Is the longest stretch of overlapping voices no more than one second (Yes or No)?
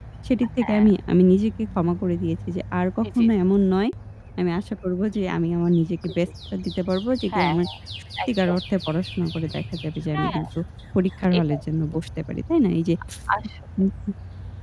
Yes